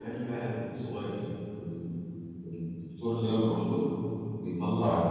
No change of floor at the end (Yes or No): Yes